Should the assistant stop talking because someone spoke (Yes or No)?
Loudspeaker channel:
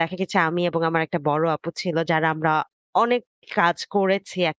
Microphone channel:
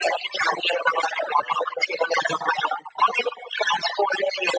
No